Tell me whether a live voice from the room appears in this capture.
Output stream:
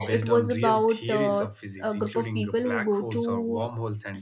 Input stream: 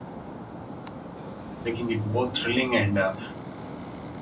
Yes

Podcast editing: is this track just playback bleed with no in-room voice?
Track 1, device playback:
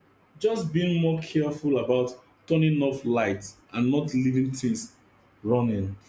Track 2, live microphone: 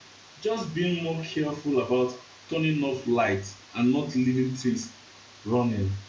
Yes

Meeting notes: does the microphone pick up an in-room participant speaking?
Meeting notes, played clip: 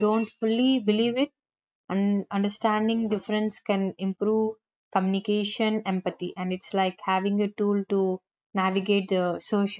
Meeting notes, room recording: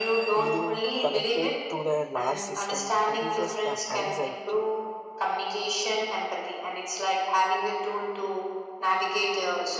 Yes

